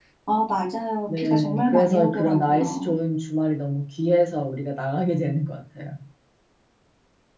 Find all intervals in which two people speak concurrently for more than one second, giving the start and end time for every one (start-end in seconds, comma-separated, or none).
1.1-2.9